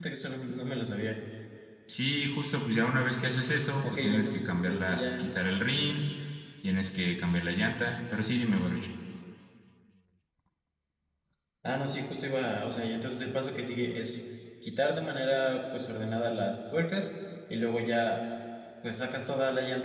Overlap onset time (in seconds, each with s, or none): 3.8 s